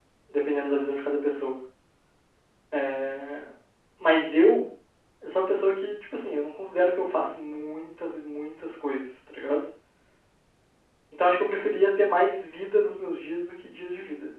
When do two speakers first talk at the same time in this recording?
none

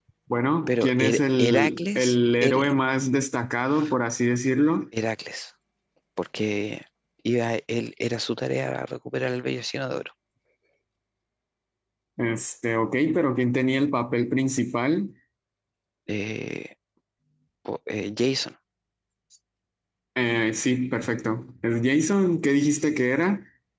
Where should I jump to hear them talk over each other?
0.7 s

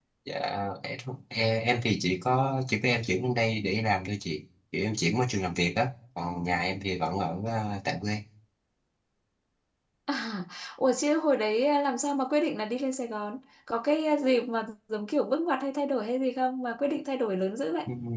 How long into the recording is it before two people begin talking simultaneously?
none

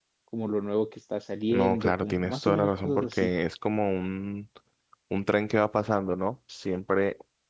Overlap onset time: 1.5 s

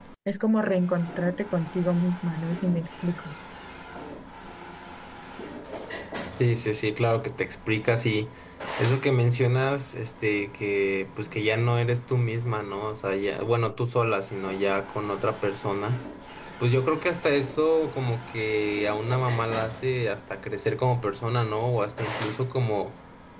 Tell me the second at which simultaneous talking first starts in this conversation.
none

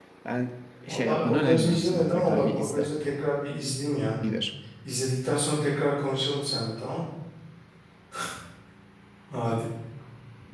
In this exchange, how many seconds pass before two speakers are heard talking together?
0.9 s

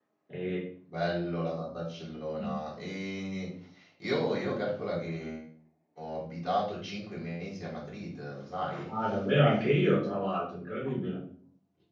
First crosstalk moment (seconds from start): none

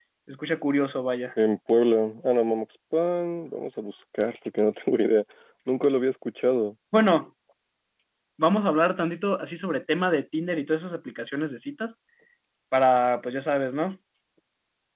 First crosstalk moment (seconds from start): none

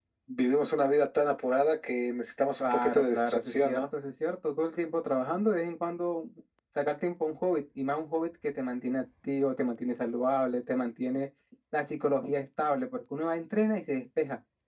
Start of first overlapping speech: 2.6 s

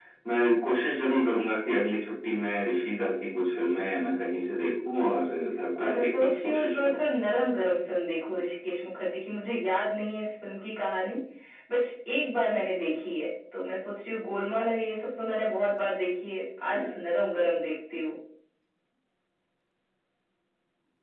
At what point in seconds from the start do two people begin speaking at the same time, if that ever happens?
5.8 s

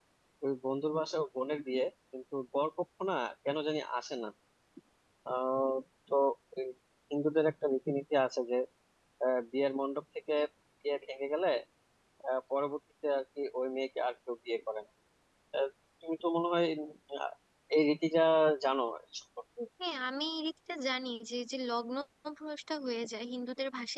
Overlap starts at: none

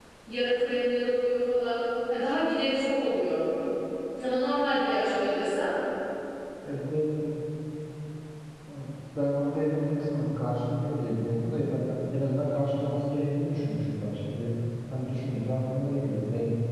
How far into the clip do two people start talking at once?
none

